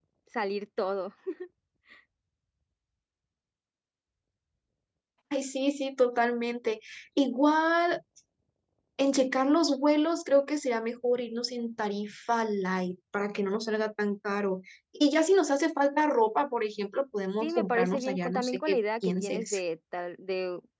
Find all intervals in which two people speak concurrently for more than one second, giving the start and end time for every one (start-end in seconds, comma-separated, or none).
17.4-19.6